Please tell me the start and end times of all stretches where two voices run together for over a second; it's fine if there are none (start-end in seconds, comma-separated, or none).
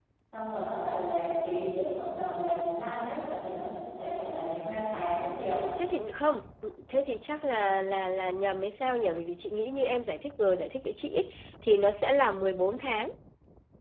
none